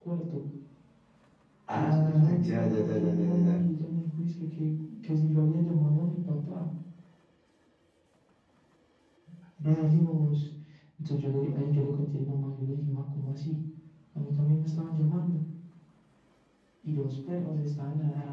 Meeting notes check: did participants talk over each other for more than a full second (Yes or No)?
Yes